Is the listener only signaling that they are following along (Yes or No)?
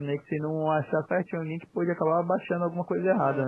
No